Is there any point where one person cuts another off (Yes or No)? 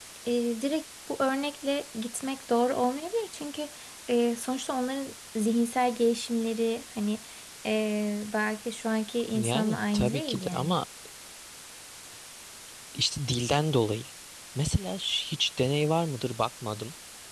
Yes